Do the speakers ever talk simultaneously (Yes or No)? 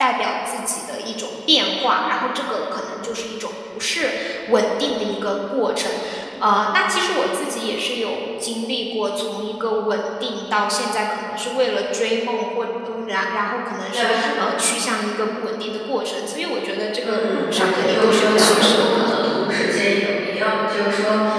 Yes